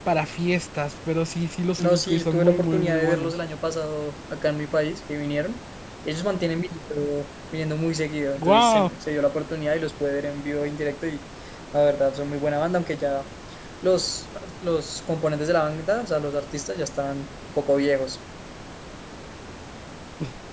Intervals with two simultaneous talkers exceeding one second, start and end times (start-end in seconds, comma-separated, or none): 1.8-3.3